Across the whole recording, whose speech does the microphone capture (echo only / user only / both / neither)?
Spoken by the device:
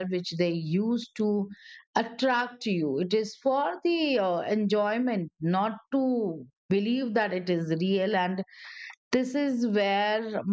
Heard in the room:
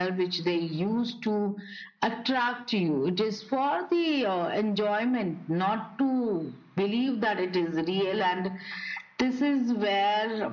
echo only